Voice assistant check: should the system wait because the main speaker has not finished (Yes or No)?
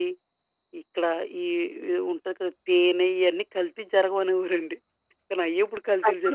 No